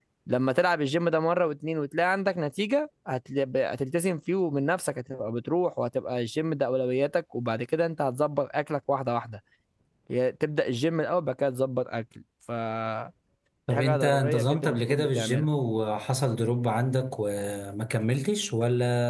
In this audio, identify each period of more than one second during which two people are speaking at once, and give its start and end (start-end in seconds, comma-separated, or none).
13.8-15.5